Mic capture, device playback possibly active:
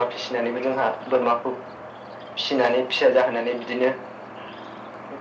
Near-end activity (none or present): none